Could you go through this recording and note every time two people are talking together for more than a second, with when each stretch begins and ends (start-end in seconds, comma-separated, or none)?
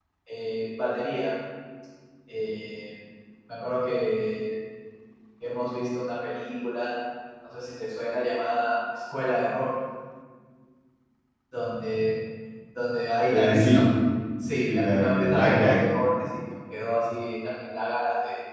14.6-15.8